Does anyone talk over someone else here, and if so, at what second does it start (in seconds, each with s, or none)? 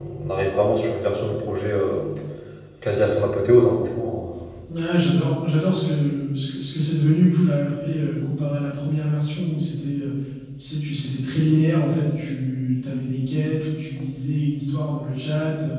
none